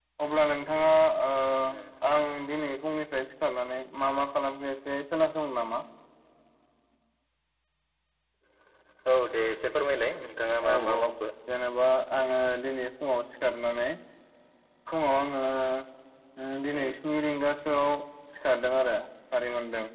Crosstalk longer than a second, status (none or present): none